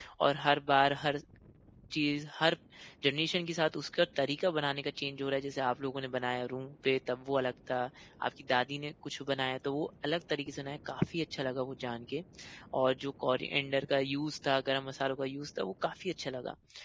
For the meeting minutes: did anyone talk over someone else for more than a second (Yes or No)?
No